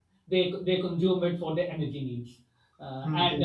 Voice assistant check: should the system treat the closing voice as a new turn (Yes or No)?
No